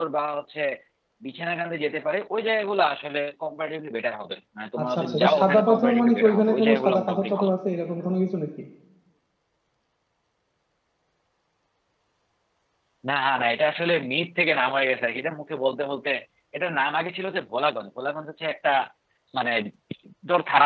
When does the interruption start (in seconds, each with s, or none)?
4.8 s